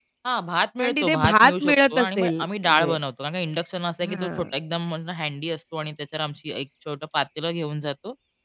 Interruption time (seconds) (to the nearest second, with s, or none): 1 s